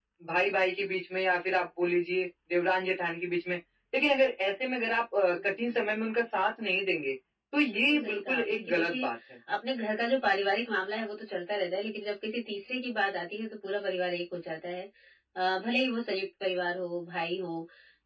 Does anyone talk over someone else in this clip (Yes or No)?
Yes